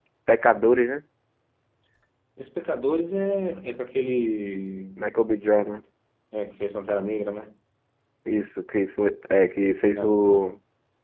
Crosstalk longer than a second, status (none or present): none